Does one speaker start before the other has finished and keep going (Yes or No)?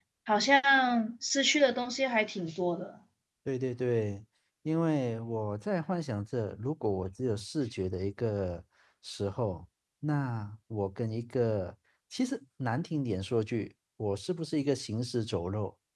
No